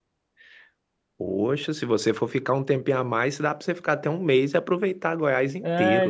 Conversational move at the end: taking over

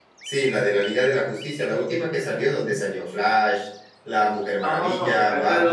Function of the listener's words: taking over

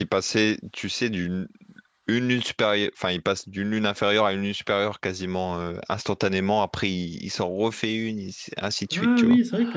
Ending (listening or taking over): taking over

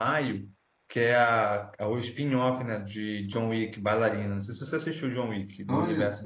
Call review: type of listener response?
taking over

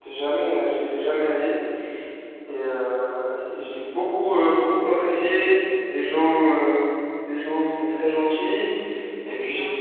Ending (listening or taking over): listening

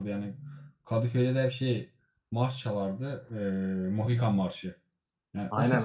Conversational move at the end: listening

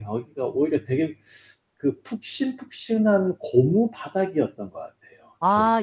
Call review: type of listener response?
taking over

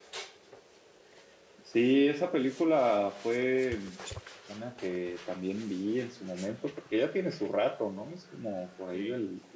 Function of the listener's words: listening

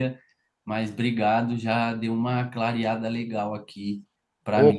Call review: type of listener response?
taking over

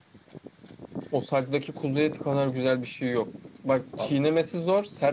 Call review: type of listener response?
listening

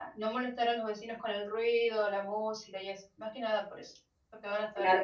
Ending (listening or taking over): taking over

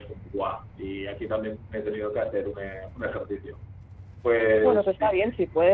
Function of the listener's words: taking over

